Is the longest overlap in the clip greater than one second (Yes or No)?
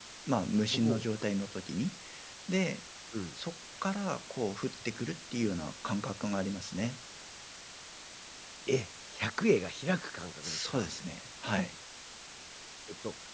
No